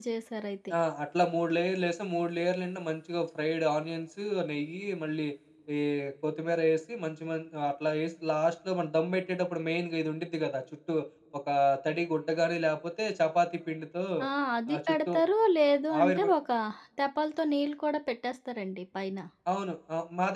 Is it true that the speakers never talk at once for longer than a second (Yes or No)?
Yes